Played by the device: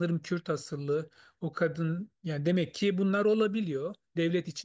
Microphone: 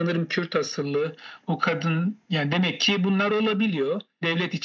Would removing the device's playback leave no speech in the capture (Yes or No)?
Yes